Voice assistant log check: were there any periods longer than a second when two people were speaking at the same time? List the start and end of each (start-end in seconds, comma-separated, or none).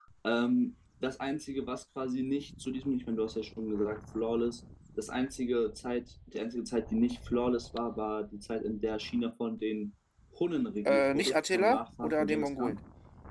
10.8-12.8